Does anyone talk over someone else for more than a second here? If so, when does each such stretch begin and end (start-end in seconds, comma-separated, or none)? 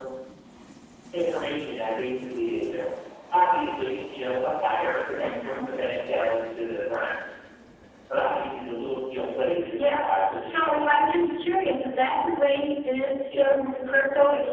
9.8-11.0